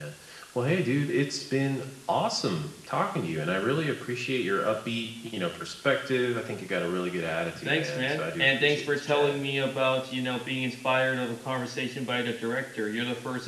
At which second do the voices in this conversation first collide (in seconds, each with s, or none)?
7.7 s